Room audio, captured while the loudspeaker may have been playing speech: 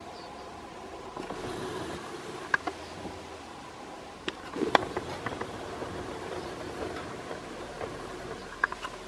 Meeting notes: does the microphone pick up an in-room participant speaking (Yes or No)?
No